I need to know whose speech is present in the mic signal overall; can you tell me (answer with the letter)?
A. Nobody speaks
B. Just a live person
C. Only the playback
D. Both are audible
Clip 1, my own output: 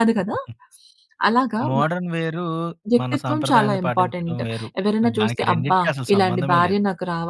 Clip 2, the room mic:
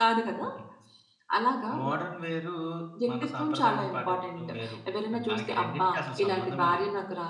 C